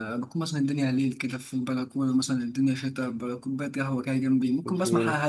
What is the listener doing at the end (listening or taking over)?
listening